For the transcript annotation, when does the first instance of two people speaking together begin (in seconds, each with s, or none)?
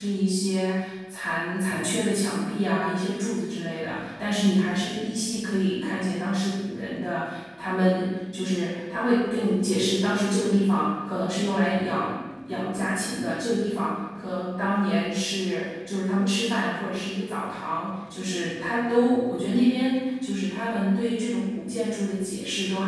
none